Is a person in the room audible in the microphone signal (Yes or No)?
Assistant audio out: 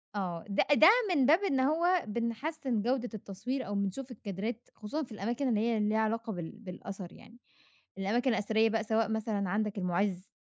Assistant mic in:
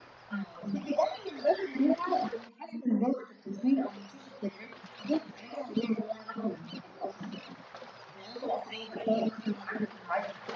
No